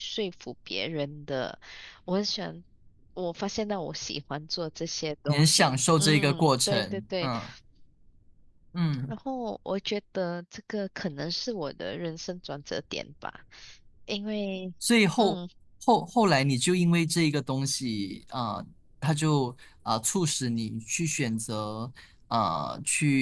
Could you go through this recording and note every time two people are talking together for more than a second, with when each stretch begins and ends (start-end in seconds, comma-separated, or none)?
5.3-7.3